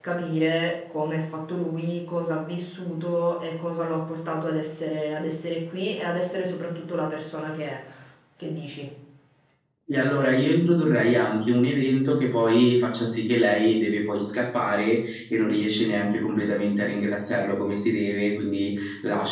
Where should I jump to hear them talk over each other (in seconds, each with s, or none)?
none